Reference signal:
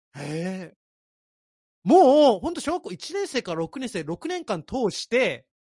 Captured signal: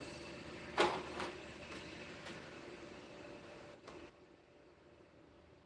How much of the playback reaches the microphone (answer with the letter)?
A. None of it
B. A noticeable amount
A